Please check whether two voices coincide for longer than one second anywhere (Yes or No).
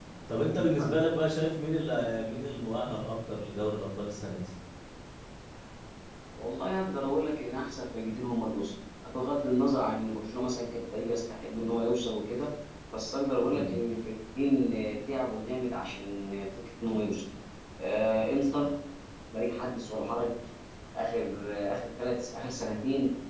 No